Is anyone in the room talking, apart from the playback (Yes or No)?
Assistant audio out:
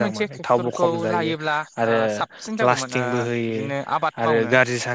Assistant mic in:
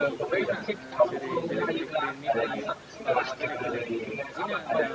Yes